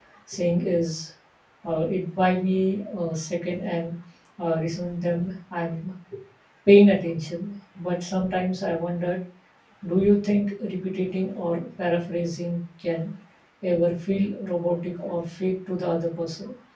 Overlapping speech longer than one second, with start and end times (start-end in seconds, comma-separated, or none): none